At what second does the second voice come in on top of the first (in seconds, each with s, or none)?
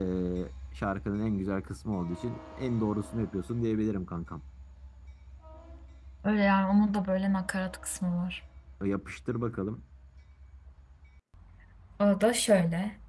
none